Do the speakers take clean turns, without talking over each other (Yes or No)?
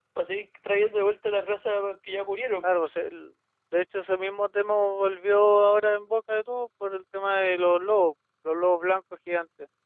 Yes